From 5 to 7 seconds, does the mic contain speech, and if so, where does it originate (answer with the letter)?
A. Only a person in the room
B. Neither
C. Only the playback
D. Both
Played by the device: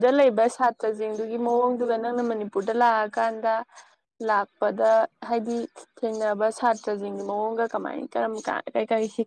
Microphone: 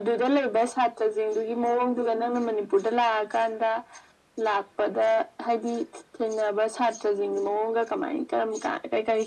C